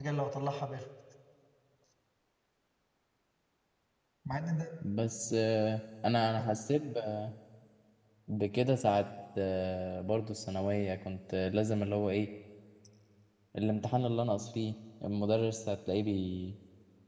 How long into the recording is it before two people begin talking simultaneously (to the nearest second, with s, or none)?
none